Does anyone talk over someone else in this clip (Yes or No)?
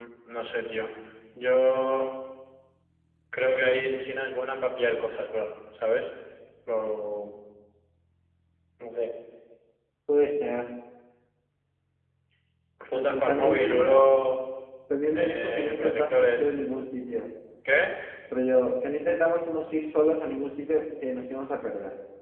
Yes